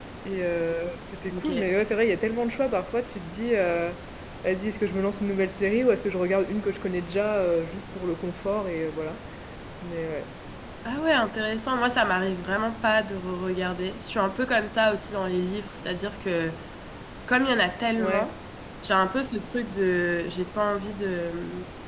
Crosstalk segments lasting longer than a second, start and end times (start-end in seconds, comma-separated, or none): none